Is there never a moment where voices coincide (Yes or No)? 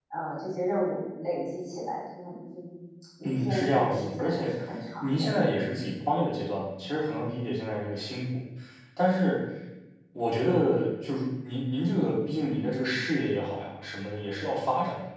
No